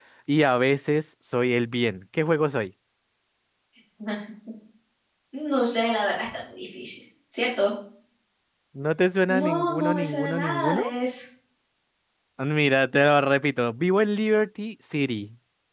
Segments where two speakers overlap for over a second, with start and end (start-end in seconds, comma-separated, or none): 9.4-10.8